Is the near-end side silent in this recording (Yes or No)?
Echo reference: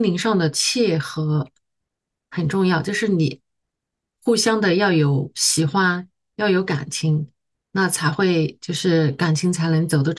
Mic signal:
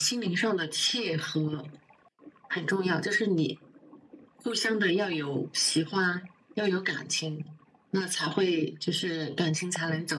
Yes